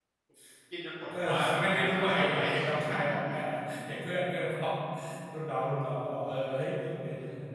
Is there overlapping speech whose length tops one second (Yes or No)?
Yes